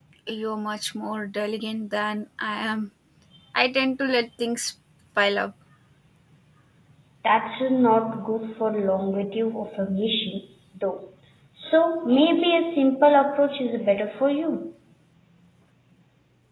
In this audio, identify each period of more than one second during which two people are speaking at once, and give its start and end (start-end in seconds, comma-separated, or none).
none